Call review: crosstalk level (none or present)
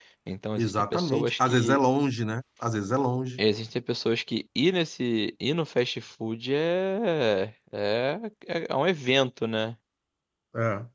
present